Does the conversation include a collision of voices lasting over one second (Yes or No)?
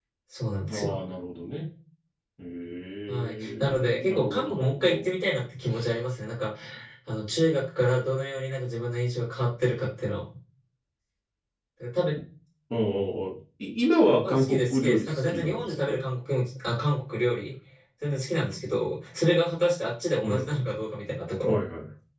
Yes